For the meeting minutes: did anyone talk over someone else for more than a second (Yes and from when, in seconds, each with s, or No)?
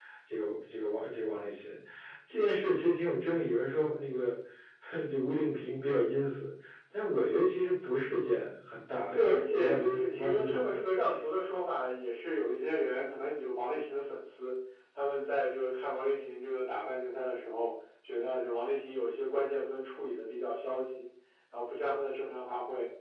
Yes, from 9.1 s